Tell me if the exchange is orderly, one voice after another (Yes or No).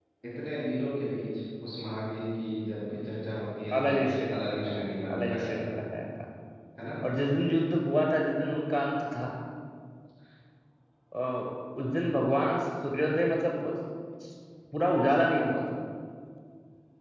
No